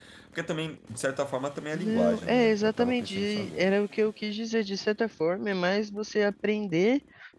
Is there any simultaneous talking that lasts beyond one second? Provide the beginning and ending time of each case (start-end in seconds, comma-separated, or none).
1.7-3.7